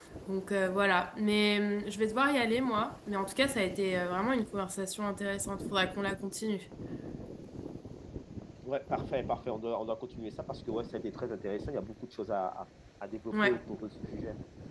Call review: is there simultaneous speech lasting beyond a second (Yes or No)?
No